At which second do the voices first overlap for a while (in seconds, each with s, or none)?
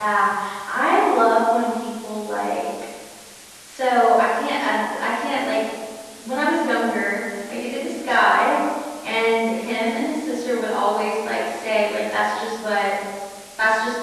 none